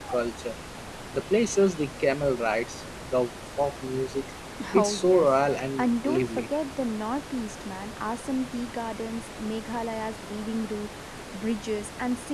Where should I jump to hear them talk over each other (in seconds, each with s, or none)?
4.8 s